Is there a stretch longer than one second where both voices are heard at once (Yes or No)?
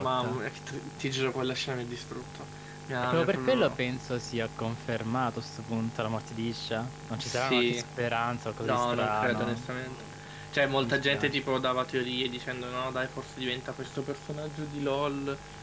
Yes